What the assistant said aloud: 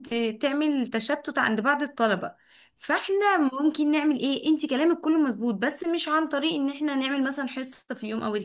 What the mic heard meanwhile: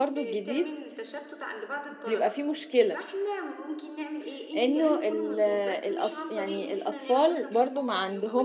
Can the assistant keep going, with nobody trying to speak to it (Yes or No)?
No